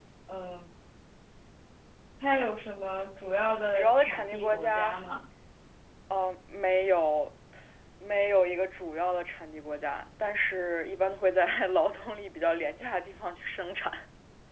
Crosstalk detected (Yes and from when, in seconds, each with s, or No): Yes, from 3.7 s